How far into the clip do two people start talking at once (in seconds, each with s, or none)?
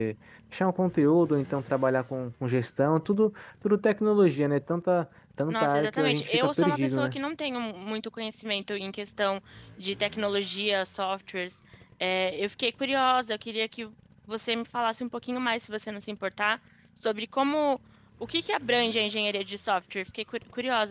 5.5 s